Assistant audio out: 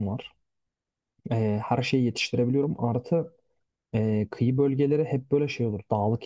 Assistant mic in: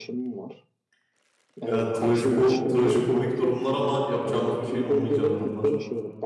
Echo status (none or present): present